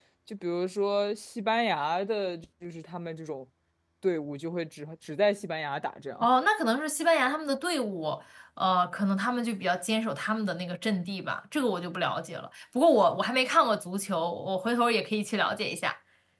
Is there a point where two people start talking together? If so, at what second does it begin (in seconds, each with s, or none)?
none